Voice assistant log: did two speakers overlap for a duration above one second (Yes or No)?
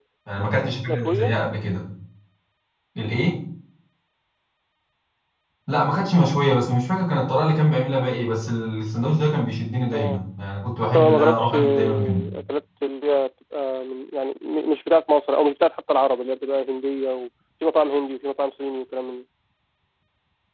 Yes